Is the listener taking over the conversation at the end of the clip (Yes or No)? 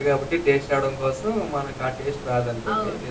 Yes